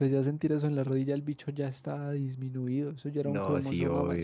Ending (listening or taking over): taking over